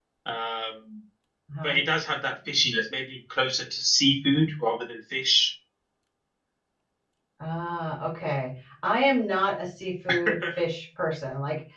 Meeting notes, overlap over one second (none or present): none